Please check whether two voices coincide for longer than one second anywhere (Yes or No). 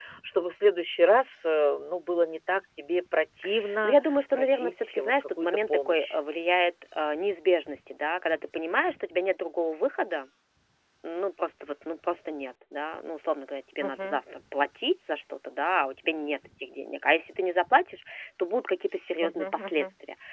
Yes